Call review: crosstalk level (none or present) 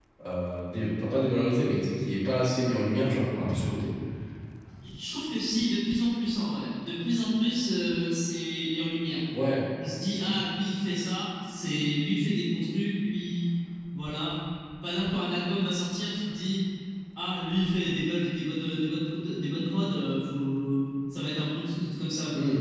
none